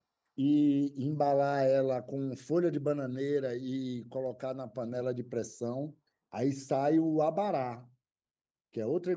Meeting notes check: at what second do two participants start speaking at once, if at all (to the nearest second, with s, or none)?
none